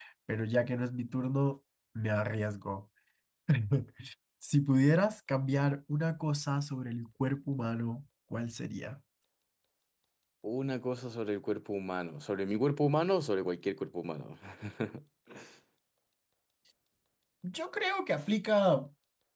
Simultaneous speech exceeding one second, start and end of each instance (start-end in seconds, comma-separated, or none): none